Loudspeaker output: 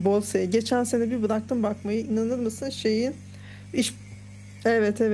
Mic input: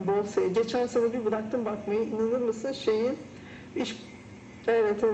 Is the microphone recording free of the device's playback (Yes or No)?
No